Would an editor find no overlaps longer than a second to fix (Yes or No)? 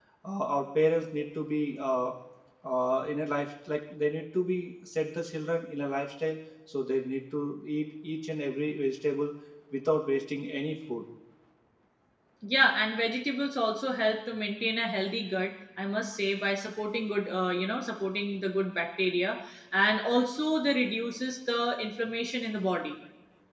Yes